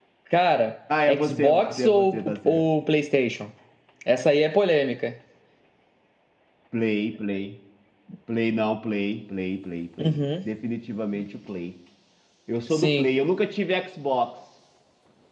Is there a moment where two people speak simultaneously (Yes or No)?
Yes